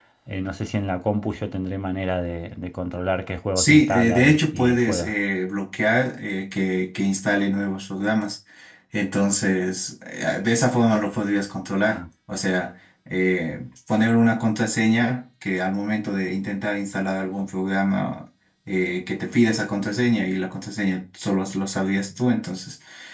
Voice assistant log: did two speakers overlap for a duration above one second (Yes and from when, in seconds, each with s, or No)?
Yes, from 3.5 s